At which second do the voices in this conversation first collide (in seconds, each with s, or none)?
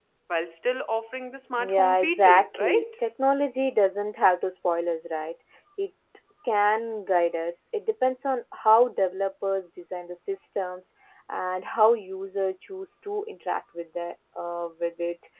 1.6 s